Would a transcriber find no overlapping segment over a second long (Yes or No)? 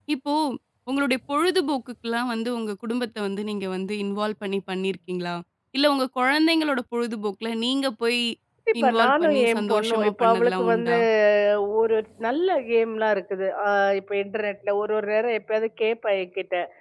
No